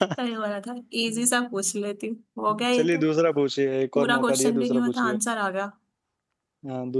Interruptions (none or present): present